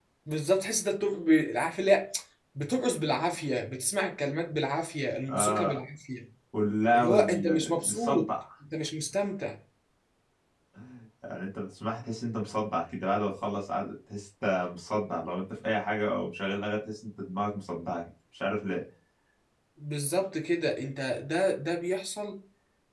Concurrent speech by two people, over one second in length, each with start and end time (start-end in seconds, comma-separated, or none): 6.9-8.3